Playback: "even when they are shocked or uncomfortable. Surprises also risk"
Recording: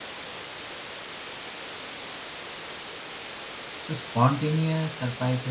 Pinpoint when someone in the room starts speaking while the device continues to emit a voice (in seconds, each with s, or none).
3.8 s